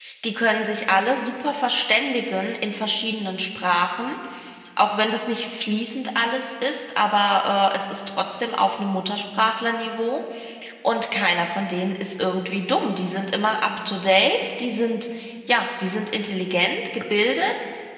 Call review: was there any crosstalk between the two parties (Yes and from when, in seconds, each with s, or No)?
No